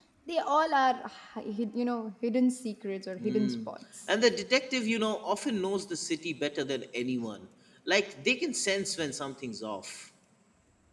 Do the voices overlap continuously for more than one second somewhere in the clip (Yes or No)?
No